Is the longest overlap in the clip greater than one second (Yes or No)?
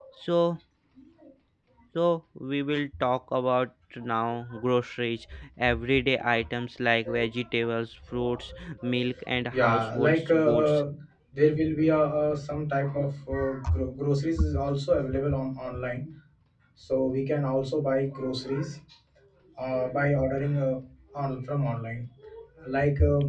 Yes